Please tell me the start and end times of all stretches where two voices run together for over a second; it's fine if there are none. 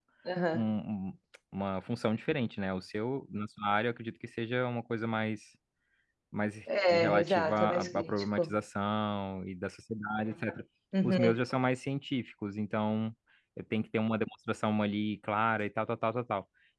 6.9-8.6

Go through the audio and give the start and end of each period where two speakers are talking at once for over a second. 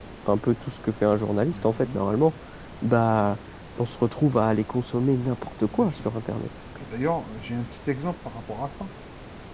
none

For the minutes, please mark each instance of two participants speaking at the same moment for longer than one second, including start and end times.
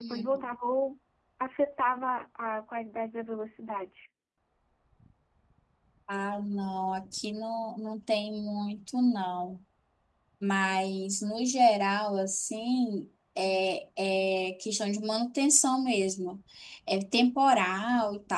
none

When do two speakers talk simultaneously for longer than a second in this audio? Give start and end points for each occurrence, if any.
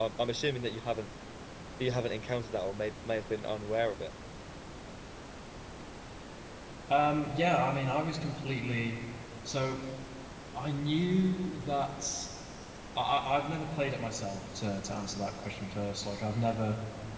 none

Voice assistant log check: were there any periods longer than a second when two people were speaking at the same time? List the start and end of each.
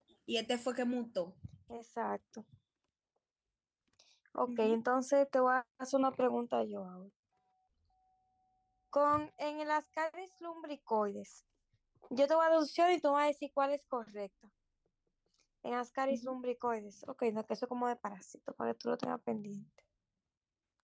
none

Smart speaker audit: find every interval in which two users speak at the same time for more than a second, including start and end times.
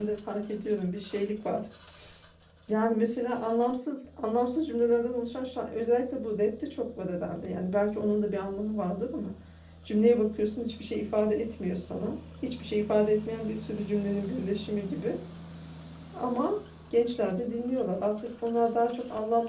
none

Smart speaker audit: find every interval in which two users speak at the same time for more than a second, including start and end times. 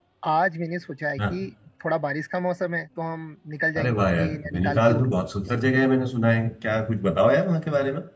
3.8-5.2

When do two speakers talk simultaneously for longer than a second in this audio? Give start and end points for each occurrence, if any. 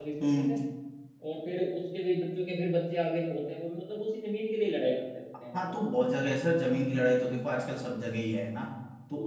none

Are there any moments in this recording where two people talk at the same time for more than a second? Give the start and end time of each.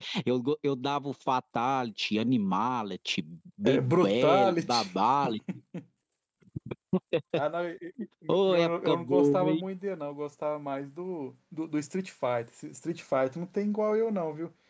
3.6-4.9, 8.3-9.6

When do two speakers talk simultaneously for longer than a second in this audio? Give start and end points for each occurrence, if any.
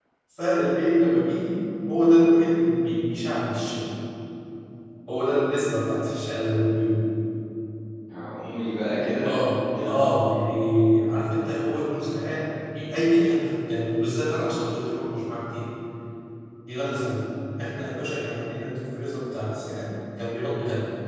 none

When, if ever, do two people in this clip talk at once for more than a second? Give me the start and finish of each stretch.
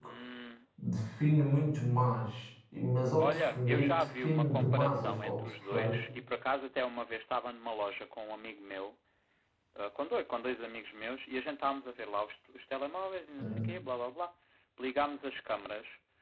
3.2-6.0

